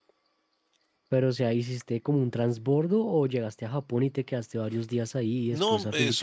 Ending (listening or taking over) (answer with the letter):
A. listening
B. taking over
B